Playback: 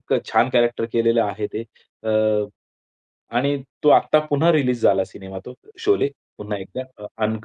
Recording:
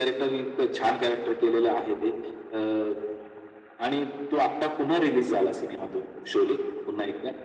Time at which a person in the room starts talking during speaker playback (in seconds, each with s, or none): none